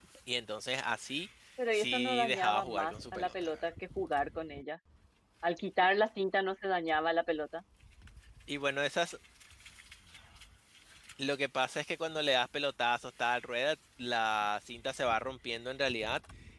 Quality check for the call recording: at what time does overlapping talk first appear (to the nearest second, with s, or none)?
2 s